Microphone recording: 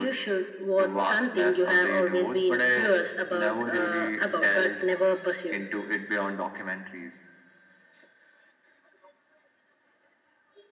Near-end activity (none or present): none